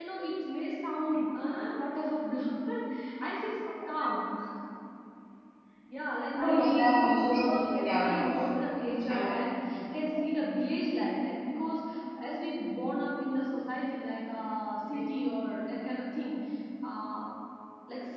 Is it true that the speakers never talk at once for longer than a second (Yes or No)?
No